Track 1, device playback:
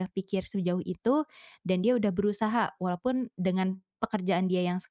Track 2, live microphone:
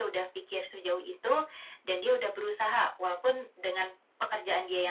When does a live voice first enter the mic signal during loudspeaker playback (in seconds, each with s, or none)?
none